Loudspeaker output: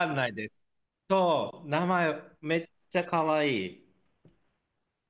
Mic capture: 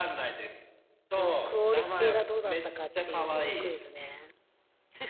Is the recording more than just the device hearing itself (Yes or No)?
Yes